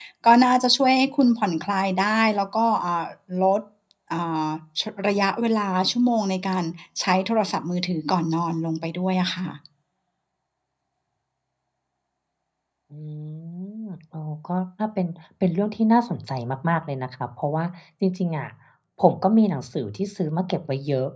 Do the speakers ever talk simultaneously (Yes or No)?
No